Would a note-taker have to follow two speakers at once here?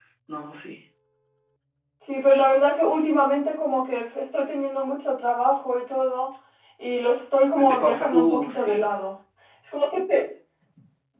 Yes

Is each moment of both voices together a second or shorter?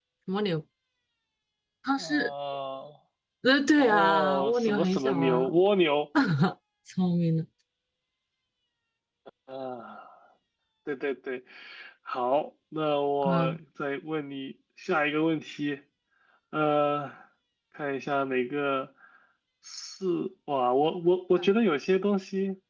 No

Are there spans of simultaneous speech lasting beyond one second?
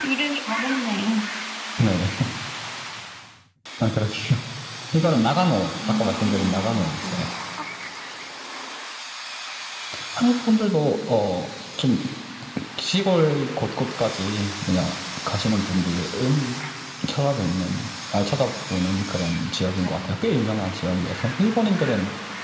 Yes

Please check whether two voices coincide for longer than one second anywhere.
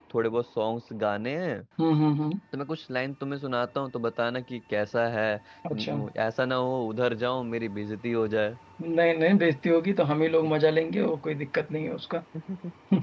No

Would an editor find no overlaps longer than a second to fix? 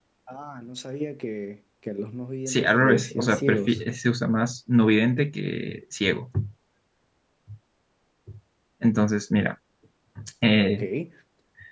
No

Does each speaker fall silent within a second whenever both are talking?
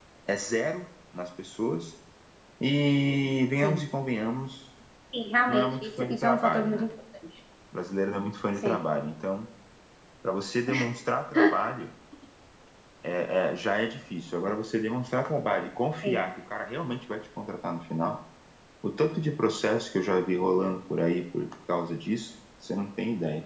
No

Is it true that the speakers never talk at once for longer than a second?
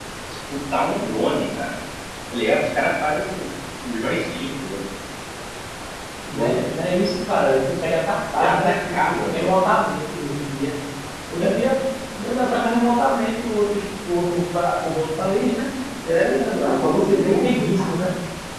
No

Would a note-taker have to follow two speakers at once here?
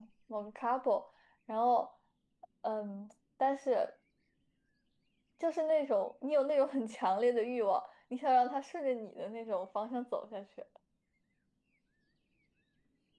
No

